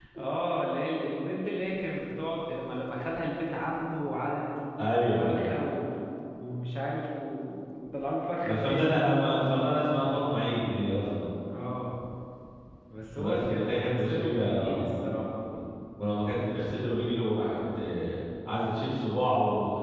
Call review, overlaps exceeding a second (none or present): present